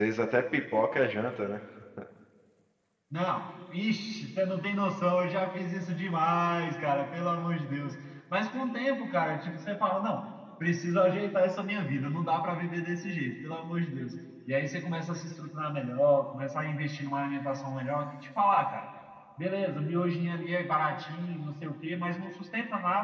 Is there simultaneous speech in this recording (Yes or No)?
No